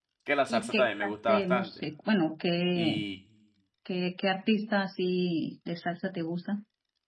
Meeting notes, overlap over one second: present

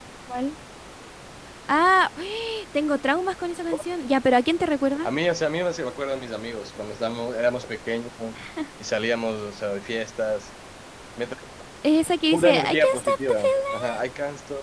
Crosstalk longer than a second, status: present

